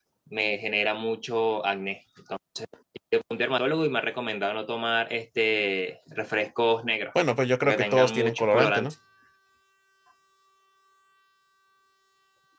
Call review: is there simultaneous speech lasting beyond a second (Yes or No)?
Yes